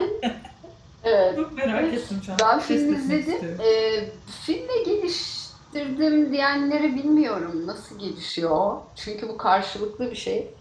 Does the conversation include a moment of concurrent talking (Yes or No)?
Yes